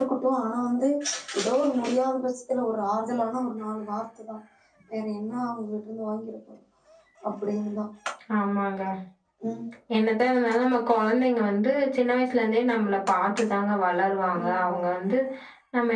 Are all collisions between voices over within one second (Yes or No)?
Yes